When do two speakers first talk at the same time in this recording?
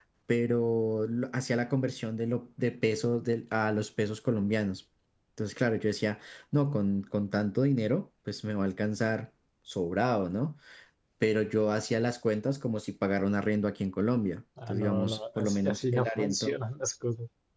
15 s

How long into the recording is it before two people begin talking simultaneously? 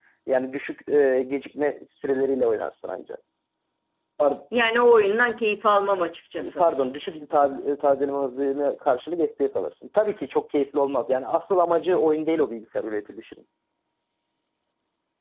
none

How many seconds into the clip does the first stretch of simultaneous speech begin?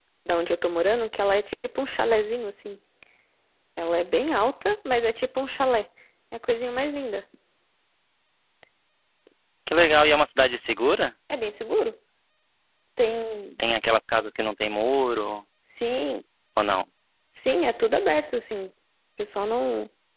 none

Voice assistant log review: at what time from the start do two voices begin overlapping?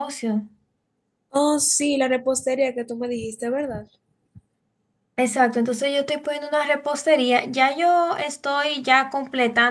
none

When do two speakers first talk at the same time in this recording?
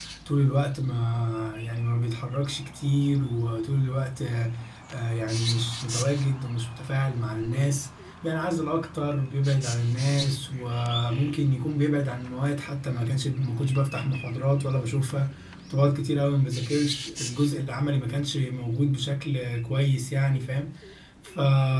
none

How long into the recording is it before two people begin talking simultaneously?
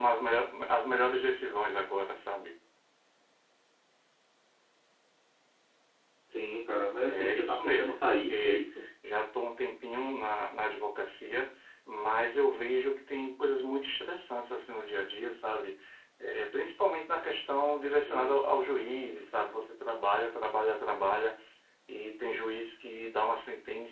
7 s

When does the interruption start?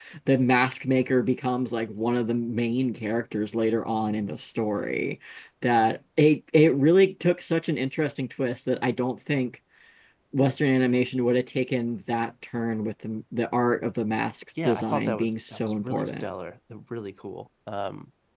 15 s

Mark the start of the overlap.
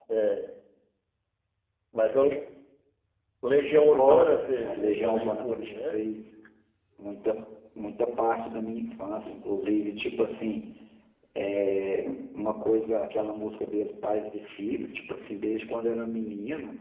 4 s

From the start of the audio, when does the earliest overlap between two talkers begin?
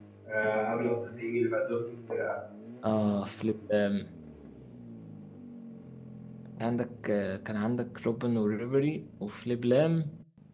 none

